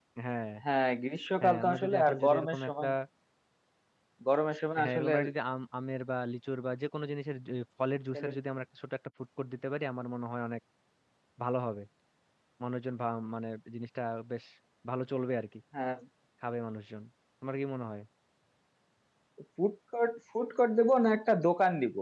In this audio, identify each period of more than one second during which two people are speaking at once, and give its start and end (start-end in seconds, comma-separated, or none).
1.4-2.9